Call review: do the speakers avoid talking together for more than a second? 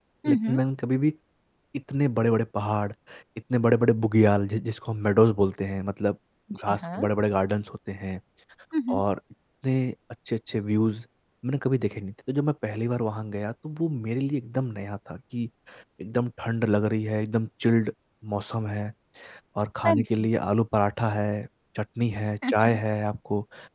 Yes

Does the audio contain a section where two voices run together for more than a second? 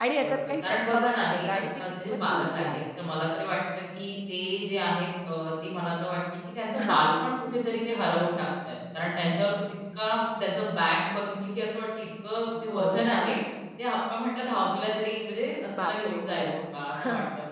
Yes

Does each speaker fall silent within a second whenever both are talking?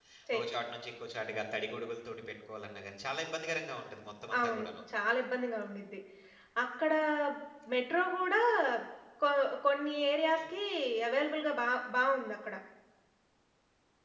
Yes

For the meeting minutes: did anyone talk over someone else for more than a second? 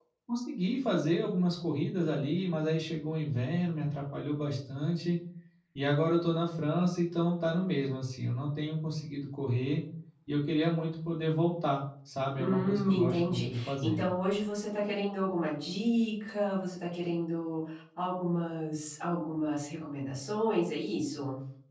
Yes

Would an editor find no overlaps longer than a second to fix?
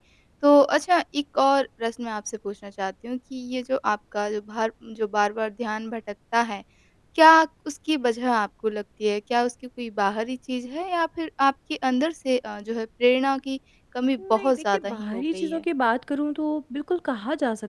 No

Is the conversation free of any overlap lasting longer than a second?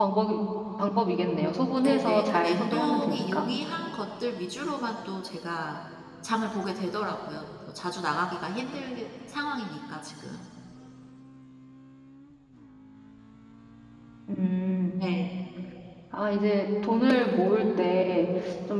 No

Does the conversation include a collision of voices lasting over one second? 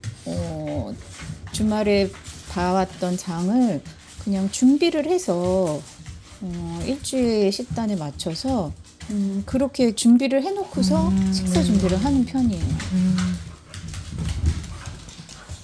Yes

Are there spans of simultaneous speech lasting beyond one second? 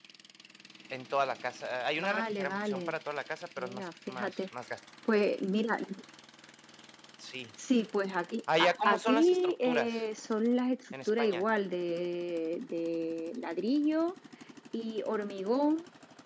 Yes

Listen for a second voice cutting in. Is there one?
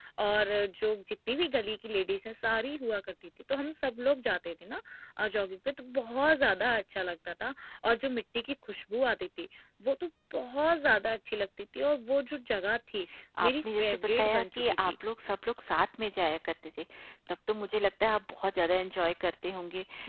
Yes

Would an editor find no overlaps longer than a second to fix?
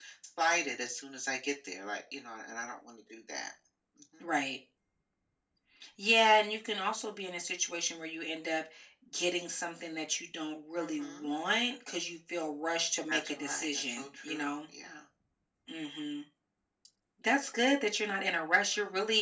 No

